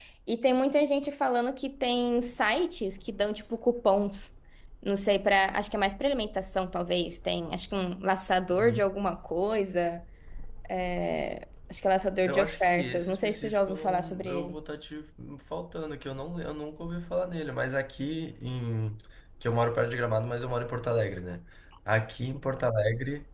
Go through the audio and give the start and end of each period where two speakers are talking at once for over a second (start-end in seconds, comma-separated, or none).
12.2-14.6